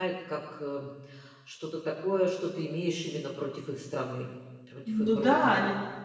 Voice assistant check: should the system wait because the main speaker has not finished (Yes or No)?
No